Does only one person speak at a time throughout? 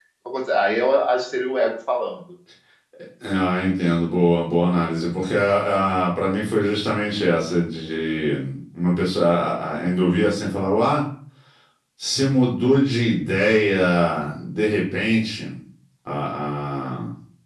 Yes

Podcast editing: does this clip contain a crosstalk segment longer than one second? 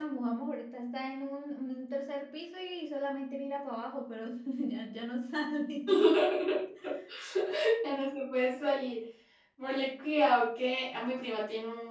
No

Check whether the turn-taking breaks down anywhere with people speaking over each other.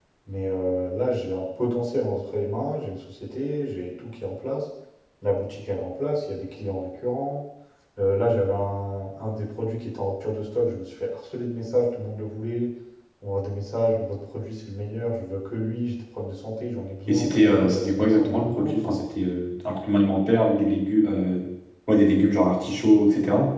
Yes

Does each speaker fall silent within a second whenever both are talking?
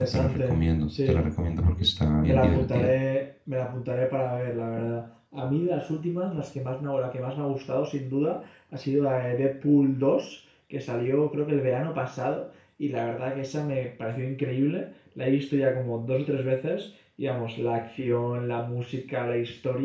No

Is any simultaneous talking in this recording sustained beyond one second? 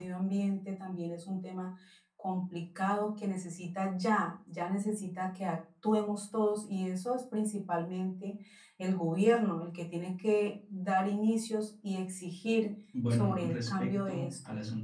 Yes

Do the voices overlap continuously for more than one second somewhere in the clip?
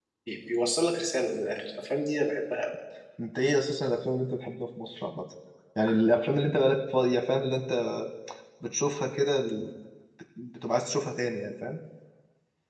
No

